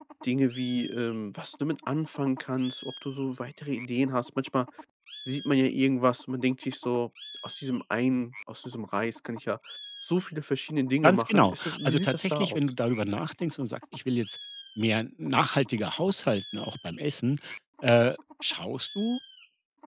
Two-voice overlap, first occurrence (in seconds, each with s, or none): 11.0 s